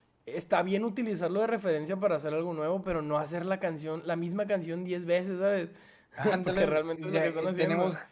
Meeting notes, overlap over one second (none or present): present